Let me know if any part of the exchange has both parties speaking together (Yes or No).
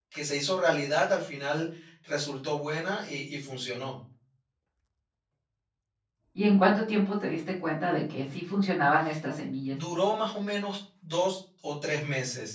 No